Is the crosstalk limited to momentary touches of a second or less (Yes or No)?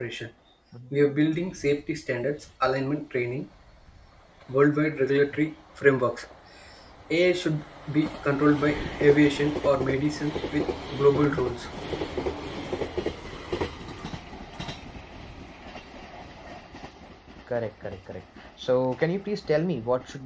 Yes